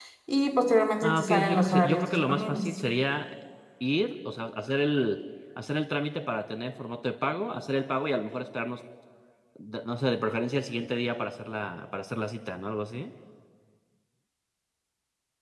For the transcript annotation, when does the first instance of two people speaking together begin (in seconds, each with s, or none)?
1.0 s